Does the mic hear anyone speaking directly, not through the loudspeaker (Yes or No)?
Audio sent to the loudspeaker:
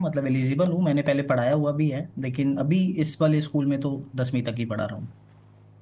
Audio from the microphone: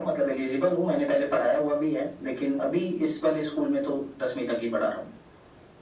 No